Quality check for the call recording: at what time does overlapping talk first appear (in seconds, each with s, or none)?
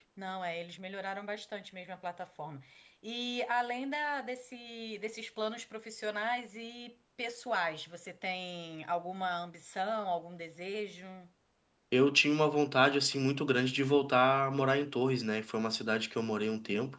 none